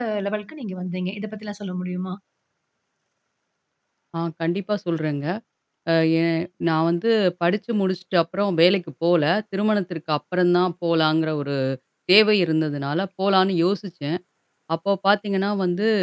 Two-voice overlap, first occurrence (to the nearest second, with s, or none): none